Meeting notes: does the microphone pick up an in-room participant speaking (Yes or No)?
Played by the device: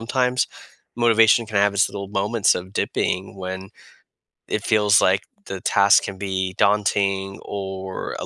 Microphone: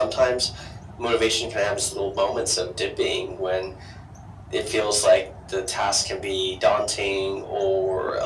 No